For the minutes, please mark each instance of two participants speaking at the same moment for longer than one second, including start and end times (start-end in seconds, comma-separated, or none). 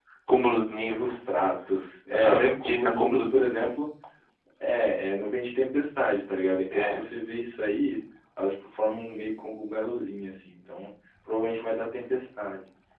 2.1-3.6